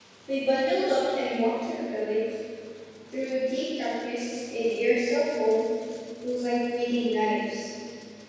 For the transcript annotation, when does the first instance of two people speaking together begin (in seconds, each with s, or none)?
none